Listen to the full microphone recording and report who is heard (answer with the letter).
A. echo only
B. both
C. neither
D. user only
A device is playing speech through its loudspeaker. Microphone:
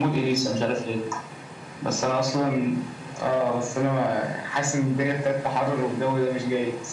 A